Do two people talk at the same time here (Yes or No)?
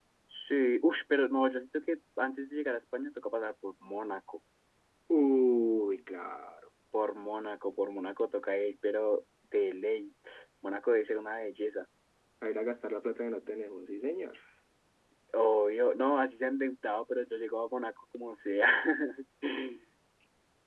No